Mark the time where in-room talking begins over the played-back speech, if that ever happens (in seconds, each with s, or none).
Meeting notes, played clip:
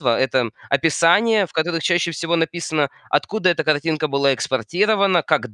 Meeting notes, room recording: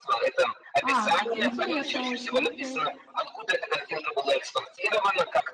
0.8 s